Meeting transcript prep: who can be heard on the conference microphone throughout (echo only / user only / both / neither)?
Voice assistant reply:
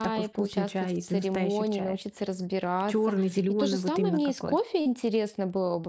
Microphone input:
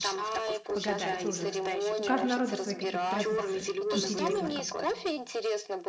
both